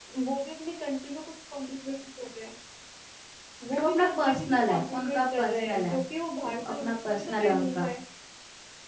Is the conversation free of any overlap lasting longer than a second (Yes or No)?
No